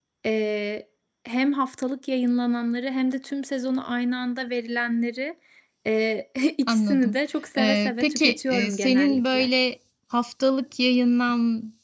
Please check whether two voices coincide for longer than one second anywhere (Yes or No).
Yes